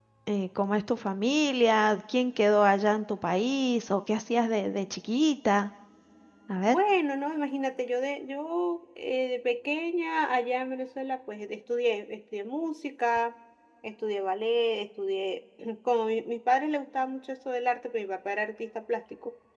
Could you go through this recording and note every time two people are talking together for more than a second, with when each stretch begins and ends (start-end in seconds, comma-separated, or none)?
none